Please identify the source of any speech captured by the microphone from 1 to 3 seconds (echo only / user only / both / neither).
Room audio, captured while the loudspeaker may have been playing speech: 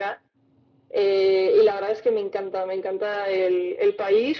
echo only